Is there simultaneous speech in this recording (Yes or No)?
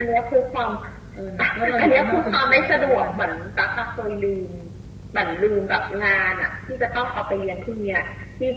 Yes